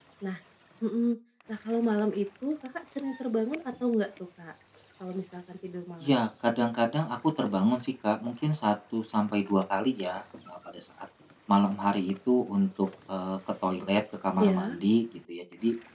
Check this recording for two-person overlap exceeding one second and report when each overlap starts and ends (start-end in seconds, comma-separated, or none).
none